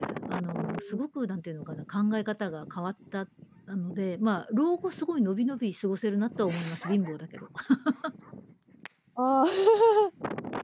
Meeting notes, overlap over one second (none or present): none